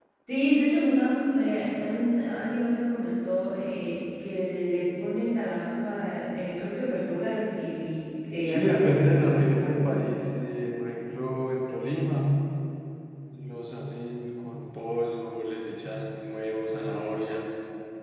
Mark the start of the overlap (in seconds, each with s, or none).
8.4 s